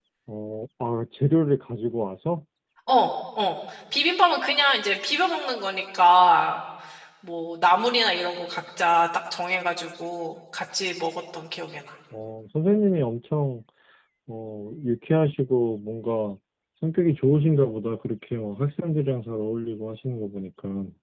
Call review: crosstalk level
none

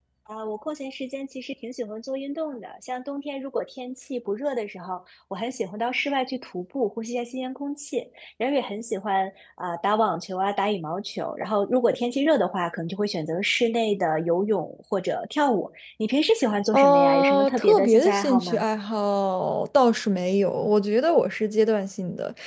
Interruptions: present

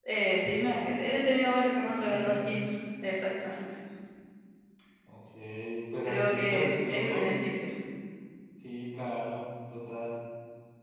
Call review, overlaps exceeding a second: present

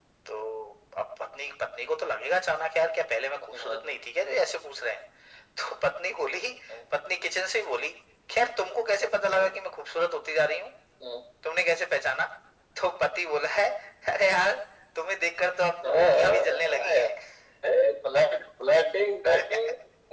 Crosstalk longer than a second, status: present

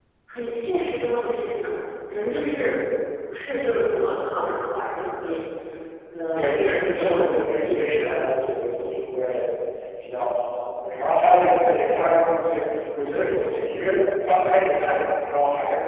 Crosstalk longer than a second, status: present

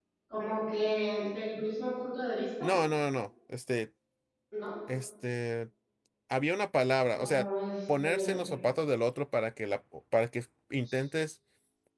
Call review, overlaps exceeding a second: none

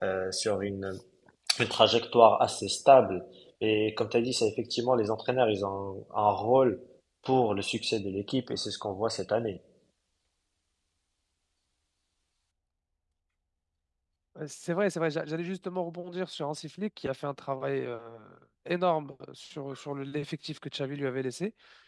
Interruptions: none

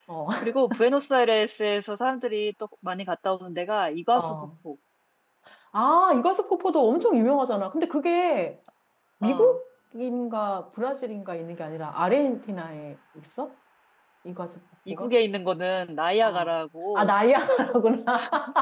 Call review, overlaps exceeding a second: none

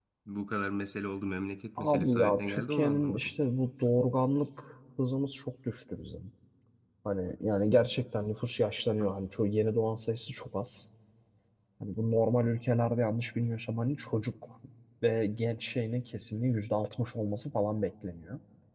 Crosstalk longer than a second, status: present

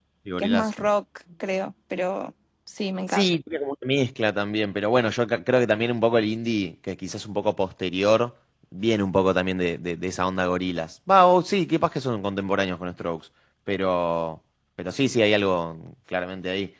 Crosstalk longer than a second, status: none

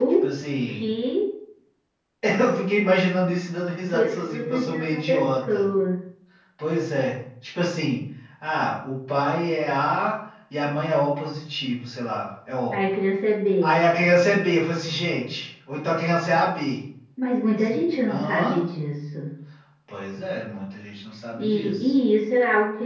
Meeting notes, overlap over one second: present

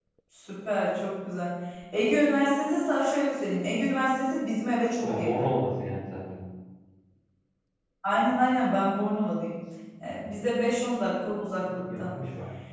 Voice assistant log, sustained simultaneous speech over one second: none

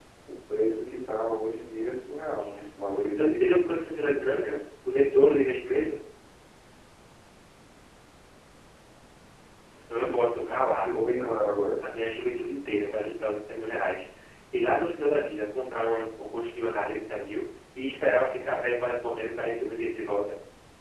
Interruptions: present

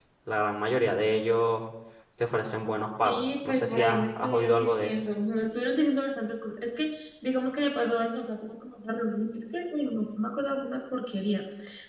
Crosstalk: present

